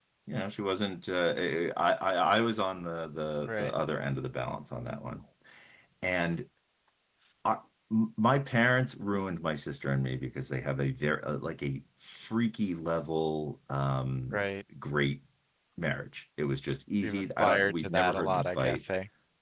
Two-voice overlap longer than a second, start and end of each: 17.0-18.8

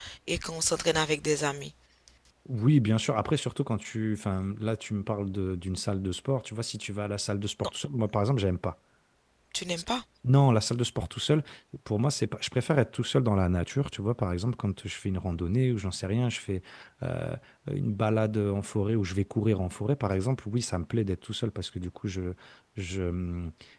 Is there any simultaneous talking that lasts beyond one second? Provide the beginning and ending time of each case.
none

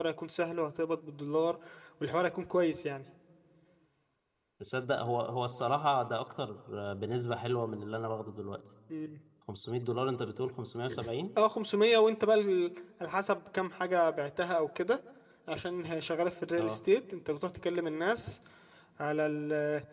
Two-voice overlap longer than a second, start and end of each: none

